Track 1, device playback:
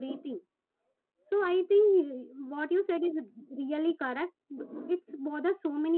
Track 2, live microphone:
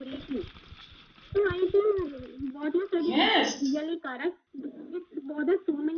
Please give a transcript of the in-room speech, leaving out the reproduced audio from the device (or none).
Yes.